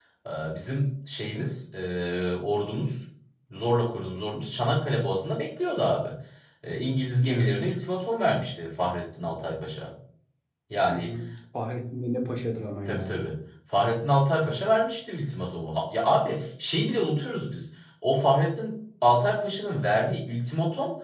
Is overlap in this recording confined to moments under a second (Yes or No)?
Yes